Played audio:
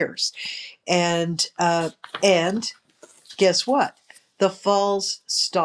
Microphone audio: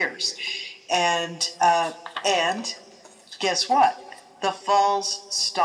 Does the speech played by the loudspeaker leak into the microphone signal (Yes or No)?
Yes